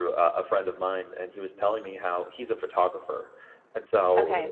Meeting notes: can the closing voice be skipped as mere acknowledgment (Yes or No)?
Yes